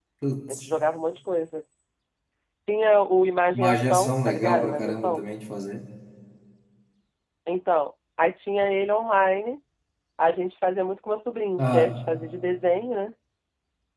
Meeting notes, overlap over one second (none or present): present